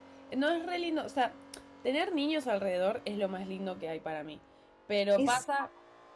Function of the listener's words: listening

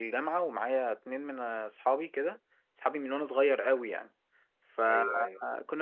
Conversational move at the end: listening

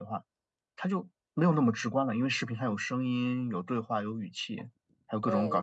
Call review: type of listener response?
taking over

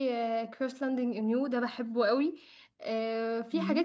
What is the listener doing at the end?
listening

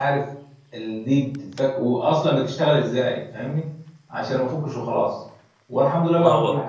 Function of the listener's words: listening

